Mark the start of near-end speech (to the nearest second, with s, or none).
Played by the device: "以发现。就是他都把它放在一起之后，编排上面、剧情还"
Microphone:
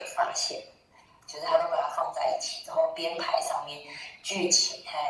none